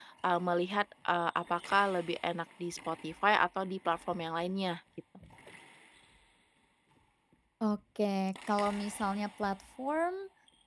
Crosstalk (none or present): none